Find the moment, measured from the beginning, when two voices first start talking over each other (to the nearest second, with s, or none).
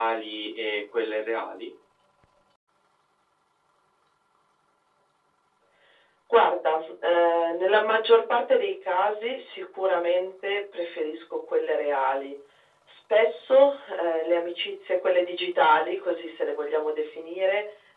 none